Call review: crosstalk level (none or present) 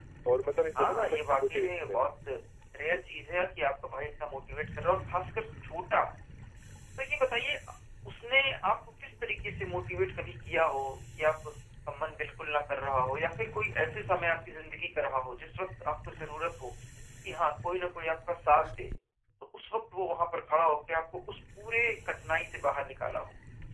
present